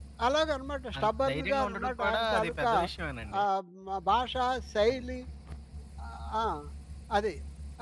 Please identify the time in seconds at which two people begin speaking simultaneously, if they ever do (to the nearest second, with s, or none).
1 s